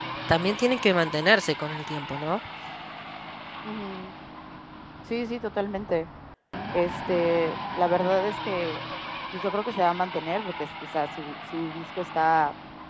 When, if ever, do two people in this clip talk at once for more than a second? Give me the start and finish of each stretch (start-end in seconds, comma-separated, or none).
none